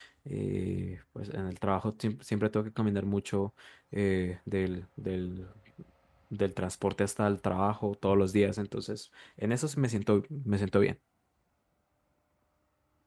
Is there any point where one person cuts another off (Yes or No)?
No